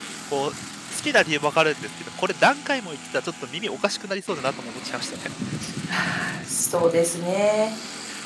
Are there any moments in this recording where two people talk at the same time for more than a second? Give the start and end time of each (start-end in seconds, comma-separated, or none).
none